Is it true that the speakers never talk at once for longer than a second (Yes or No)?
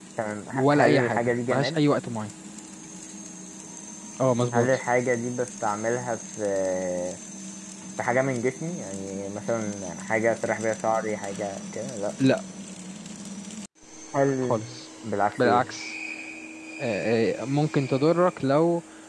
No